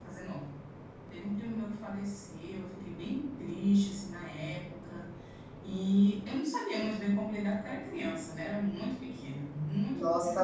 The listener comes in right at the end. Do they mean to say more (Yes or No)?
Yes